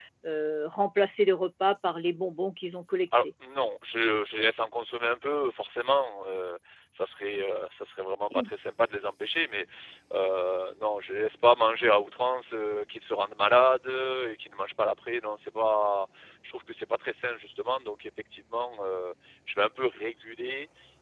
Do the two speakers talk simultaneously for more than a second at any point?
No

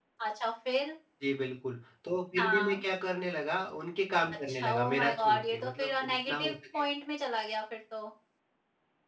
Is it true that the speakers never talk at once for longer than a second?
No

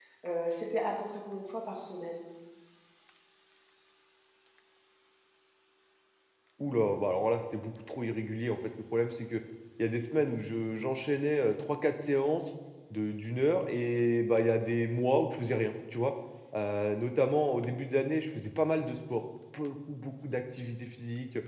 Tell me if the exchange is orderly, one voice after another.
Yes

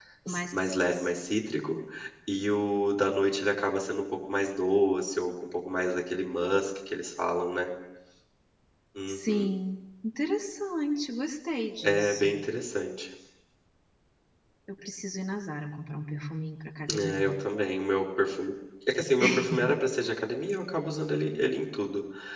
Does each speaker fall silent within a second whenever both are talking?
Yes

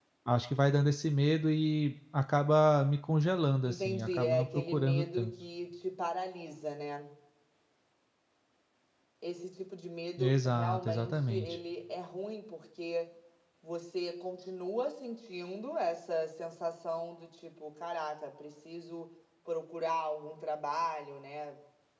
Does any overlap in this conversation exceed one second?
Yes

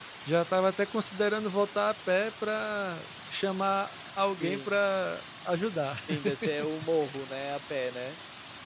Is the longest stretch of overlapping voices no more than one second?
Yes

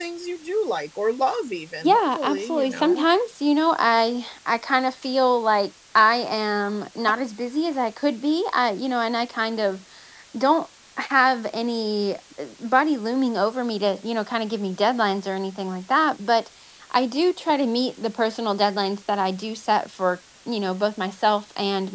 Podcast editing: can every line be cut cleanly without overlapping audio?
No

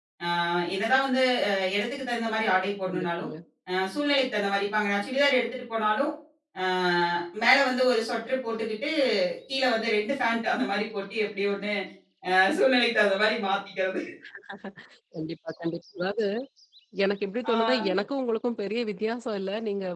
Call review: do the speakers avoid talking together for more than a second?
Yes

